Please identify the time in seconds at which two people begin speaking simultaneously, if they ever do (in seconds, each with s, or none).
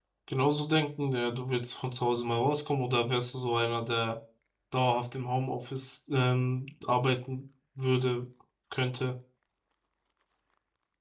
none